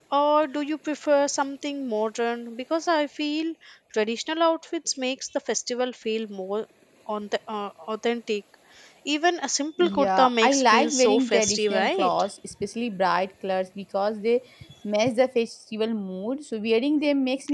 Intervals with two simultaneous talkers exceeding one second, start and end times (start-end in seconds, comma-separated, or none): 9.8-12.1